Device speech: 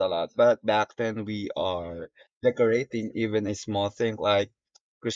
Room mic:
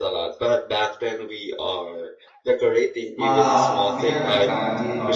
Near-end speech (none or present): present